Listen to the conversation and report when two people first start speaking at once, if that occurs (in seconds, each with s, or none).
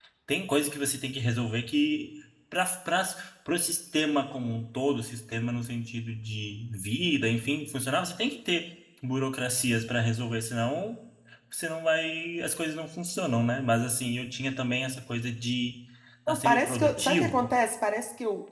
16.3 s